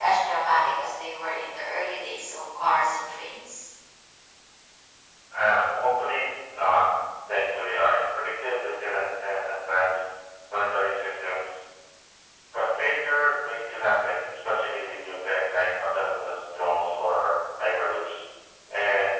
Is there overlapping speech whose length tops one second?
No

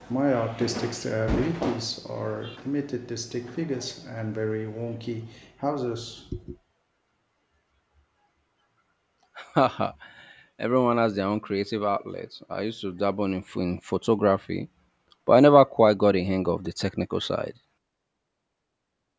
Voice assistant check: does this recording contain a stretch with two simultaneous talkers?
No

